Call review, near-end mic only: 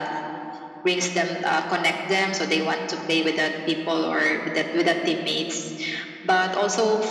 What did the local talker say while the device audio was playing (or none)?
none